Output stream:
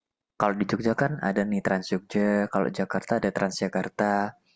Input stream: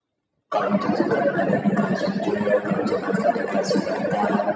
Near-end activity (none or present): none